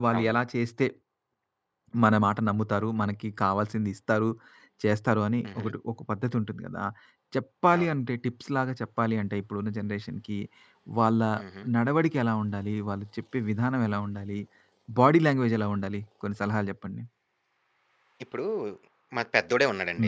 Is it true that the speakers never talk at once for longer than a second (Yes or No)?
Yes